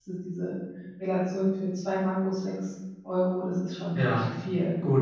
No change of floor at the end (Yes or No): No